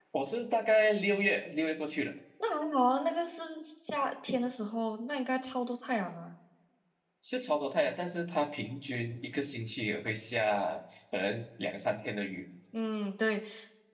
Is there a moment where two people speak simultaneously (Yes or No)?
No